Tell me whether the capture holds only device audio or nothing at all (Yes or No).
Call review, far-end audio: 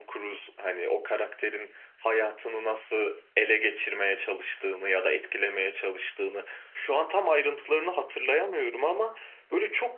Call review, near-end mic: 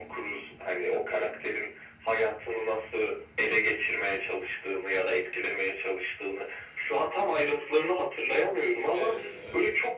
No